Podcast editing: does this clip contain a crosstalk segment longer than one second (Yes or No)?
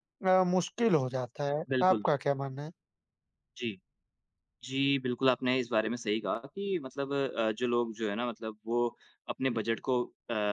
No